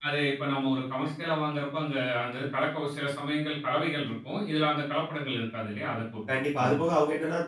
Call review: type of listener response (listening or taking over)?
taking over